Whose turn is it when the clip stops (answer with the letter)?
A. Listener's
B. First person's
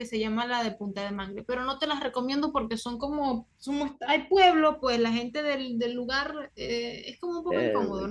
A